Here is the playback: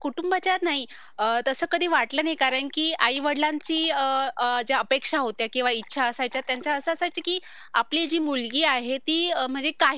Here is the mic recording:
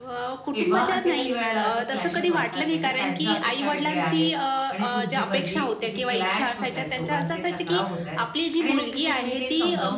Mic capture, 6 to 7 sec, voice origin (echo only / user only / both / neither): both